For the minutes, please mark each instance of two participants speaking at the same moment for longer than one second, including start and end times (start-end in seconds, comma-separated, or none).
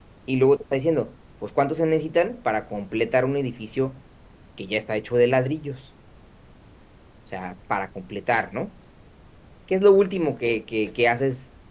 none